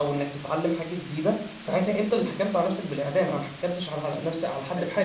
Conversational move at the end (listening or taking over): taking over